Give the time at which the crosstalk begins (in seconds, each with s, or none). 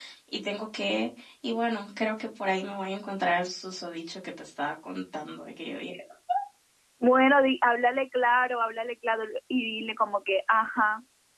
none